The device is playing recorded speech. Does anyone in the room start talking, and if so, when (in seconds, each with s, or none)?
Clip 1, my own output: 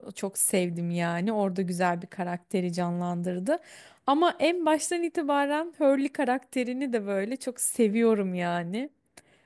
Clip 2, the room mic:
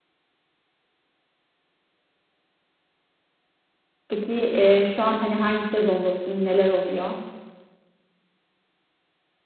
4.1 s